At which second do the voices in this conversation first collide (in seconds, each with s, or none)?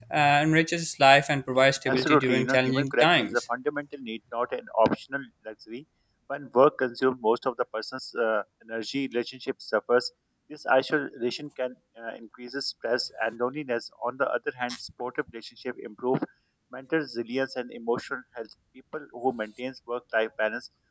1.9 s